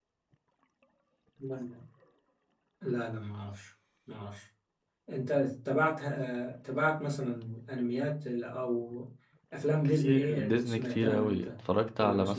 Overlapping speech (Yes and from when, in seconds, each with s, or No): Yes, from 9.8 s